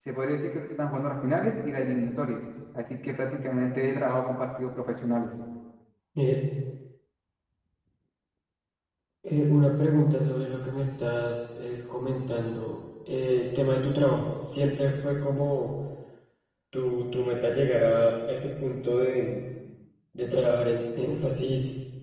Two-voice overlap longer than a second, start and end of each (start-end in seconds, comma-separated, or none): none